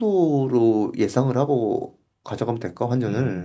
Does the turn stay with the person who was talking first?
No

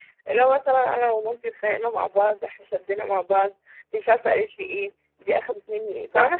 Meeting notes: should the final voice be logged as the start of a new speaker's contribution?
No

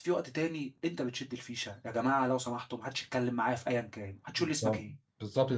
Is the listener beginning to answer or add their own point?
Yes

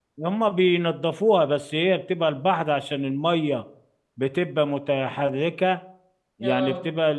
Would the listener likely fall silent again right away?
Yes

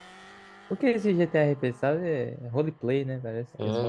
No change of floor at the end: No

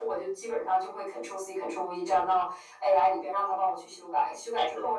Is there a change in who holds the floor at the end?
No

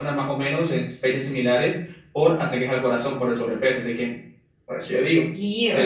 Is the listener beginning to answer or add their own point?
Yes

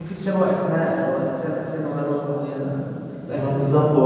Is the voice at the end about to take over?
Yes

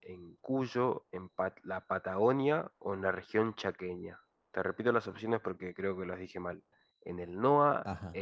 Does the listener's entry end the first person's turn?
No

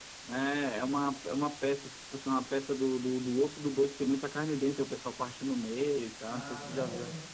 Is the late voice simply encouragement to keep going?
No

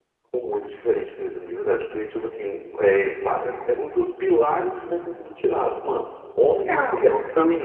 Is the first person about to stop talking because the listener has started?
No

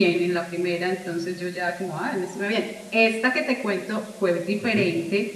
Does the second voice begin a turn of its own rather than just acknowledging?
No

